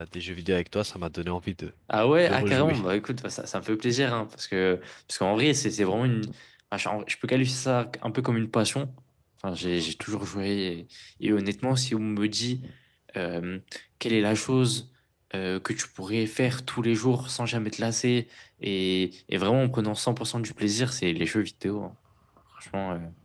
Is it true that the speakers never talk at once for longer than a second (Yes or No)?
Yes